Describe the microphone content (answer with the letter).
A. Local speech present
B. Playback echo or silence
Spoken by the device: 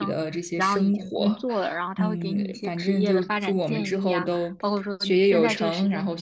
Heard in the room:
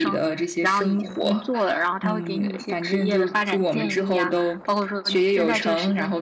B